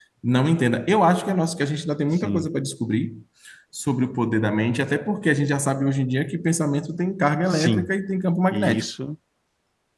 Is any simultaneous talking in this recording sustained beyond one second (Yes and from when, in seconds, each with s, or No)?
No